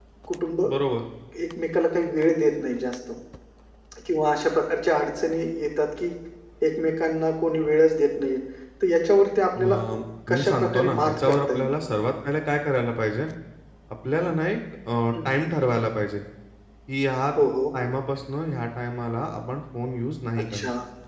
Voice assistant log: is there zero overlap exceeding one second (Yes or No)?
No